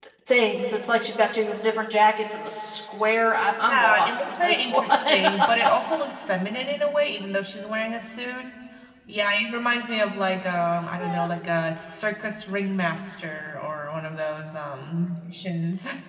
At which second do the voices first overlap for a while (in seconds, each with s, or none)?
3.6 s